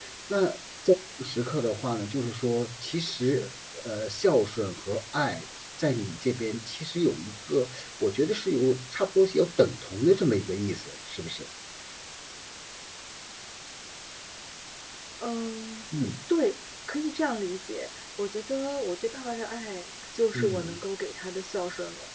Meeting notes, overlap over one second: none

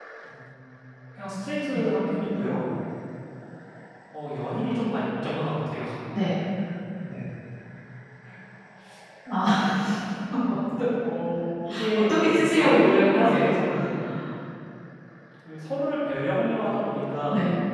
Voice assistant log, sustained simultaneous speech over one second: present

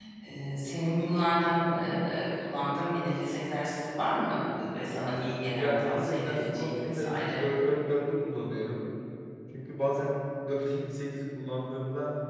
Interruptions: present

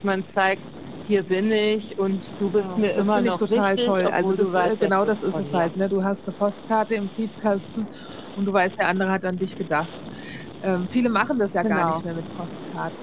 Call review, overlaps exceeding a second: present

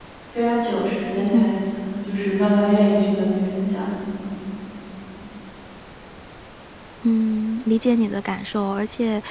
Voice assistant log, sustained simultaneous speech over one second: none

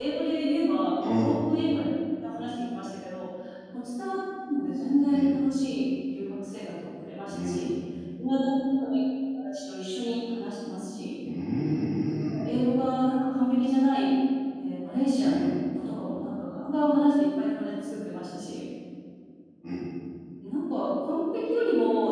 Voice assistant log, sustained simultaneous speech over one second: none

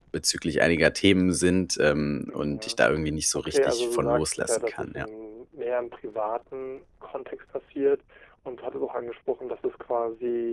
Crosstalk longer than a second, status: present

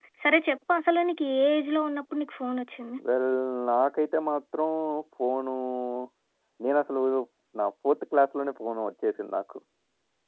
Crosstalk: none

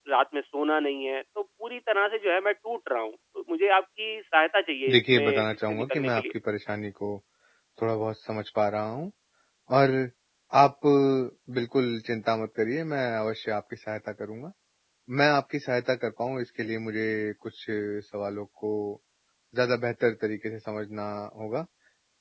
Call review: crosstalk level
present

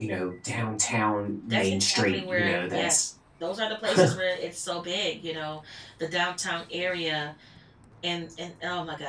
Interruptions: present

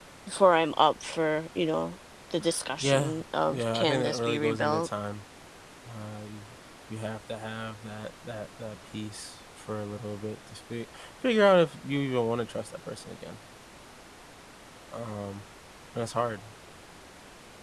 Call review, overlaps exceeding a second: present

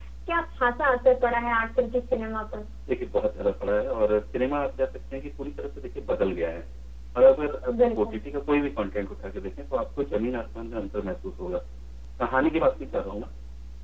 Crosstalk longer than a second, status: none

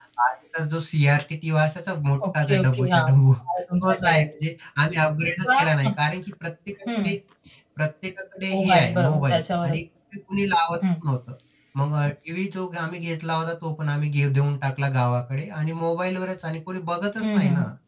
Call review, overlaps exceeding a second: present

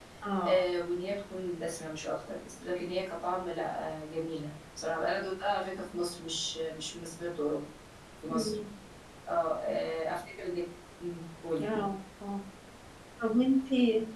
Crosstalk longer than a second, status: none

